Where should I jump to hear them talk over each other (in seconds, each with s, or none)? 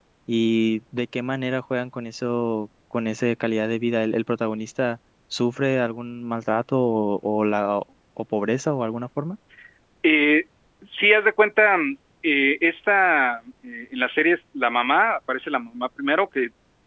none